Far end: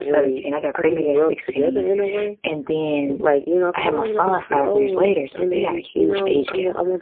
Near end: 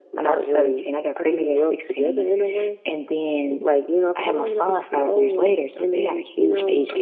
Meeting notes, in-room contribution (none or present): none